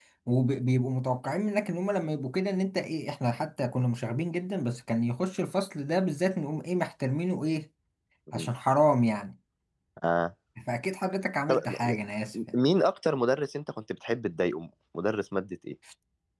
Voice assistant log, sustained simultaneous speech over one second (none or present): none